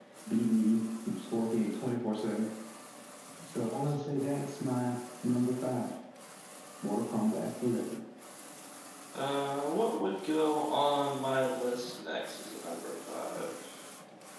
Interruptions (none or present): none